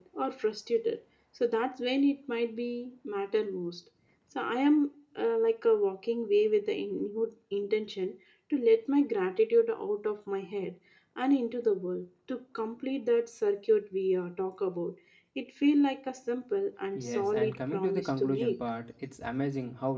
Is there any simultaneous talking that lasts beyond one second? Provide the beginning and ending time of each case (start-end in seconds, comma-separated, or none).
17.0-18.6